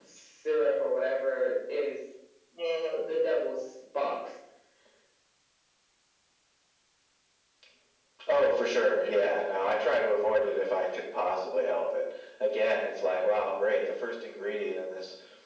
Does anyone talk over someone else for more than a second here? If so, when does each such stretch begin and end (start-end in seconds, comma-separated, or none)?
none